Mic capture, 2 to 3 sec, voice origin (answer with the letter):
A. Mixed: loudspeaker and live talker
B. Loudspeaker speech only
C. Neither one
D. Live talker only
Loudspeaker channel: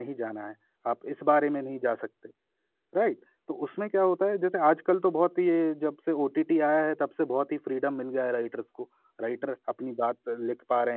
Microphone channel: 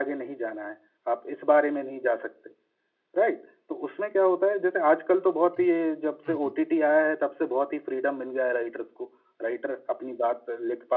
B